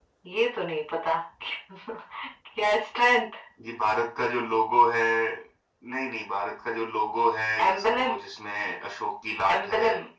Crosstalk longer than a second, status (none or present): none